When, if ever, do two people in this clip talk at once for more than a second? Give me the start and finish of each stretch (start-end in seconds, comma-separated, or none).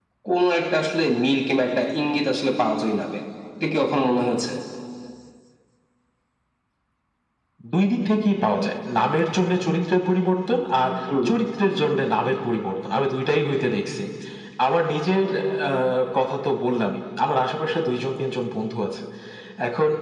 none